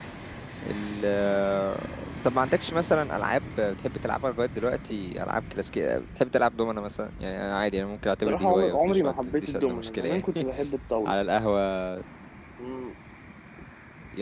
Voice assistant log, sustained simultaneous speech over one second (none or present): present